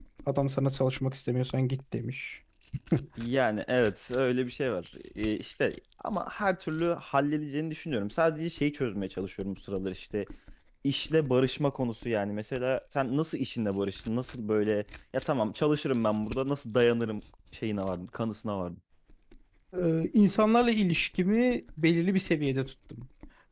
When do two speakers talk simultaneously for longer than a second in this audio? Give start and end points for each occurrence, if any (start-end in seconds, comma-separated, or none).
none